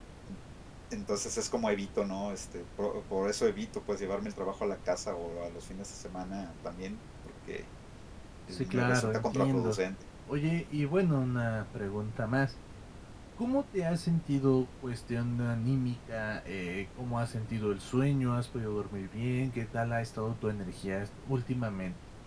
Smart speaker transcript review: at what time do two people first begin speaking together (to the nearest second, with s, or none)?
8 s